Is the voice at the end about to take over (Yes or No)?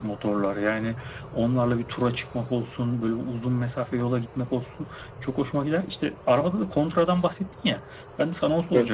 No